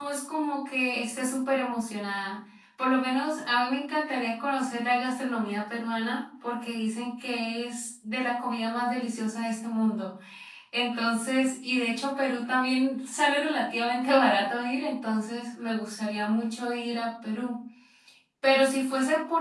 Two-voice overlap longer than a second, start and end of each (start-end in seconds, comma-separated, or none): none